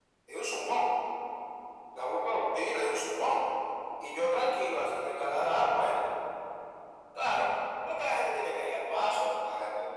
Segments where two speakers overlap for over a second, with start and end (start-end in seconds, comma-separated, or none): none